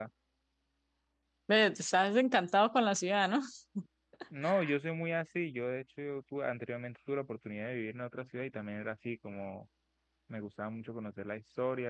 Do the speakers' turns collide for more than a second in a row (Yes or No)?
No